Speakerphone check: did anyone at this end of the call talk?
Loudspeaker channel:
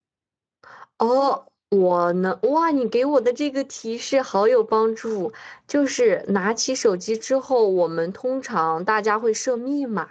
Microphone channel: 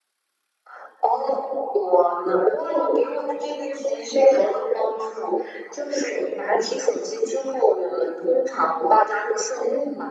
No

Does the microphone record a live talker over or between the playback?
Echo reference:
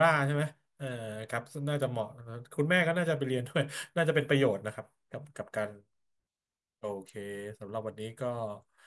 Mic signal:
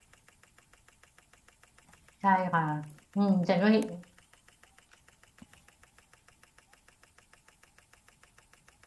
Yes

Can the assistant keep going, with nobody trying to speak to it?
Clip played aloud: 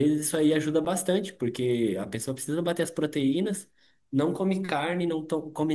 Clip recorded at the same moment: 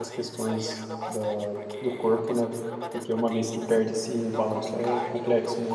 No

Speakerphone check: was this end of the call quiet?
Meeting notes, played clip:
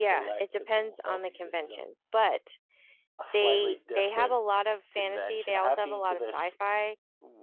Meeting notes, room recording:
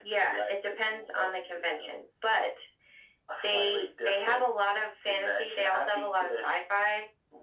Yes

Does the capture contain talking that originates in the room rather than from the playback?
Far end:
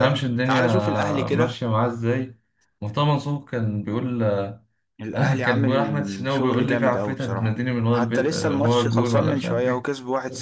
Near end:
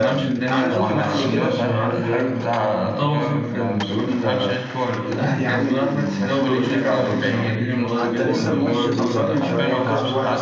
Yes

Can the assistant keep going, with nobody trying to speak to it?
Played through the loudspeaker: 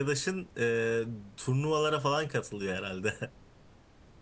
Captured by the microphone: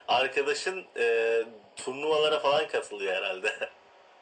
Yes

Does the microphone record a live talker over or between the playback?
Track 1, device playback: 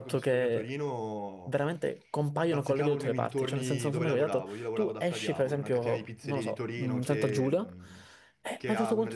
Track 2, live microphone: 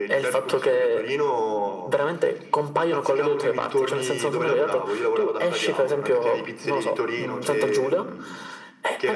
No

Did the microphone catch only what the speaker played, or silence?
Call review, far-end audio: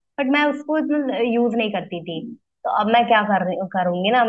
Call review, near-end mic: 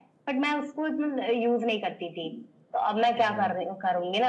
No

